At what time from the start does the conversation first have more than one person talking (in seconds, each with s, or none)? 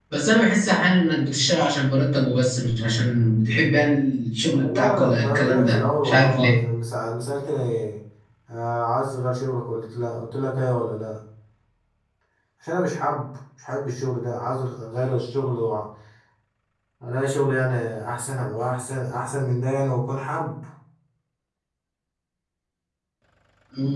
4.5 s